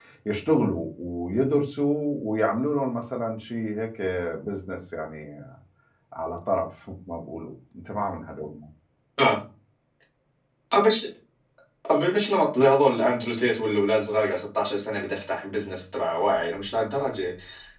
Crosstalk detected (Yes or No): No